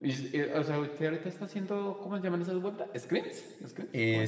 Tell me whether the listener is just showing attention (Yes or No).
No